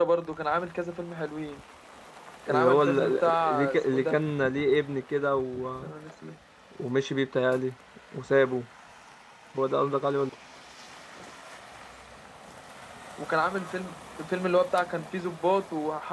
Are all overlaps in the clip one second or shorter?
No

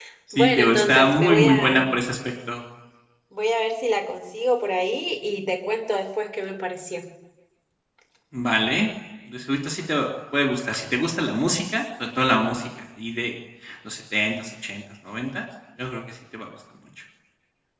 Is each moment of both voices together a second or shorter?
No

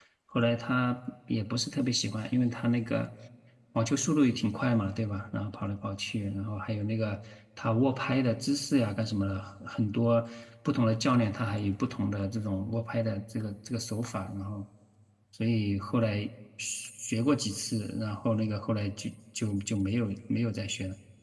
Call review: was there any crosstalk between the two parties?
No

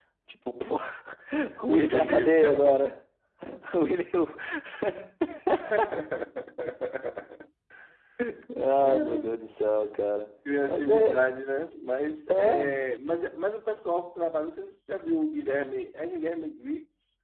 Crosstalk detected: Yes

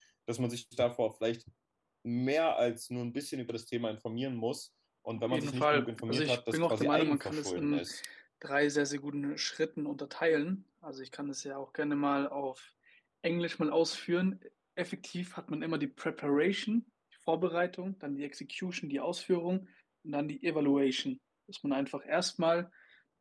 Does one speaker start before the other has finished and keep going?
Yes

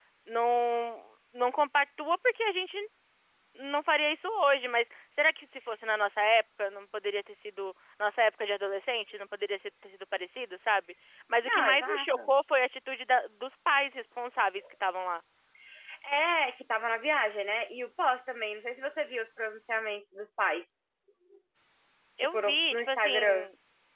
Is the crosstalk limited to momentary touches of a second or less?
No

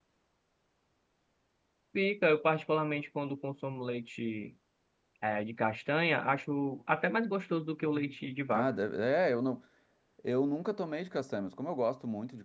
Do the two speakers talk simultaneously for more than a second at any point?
No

